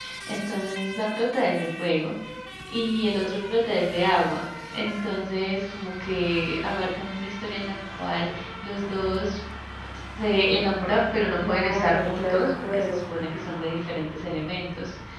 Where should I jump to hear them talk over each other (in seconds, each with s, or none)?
11.4 s